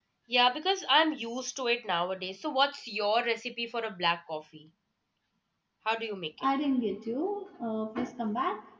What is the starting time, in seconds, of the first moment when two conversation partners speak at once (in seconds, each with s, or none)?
none